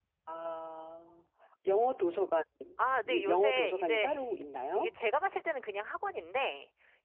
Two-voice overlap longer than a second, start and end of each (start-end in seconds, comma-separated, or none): 3.1-4.4